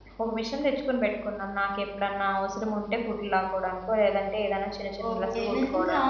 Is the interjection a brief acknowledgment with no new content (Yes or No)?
No